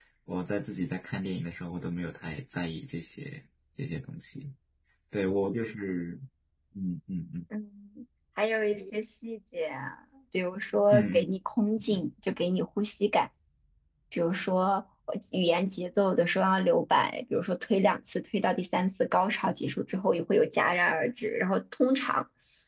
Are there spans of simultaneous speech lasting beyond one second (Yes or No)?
No